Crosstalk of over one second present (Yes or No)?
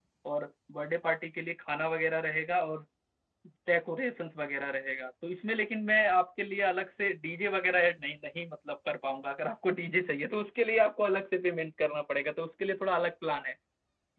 No